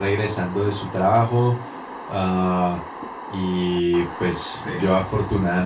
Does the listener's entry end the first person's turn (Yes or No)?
No